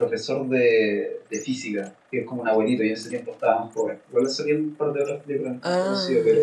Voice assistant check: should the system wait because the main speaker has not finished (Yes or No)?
No